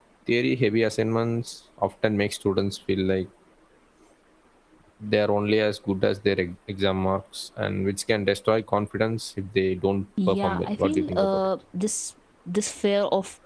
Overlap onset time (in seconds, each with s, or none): 10.2 s